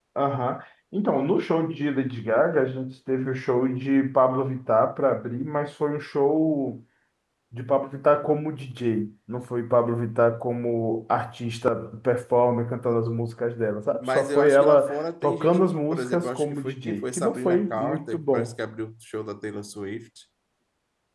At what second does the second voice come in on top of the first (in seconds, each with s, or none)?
14.0 s